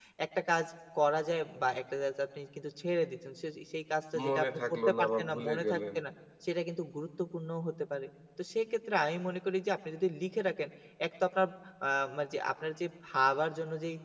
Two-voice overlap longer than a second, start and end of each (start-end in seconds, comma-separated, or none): 4.3-5.8